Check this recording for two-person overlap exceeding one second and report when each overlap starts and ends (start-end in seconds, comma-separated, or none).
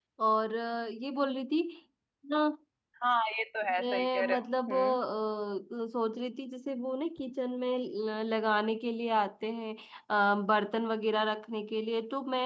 3.8-5.0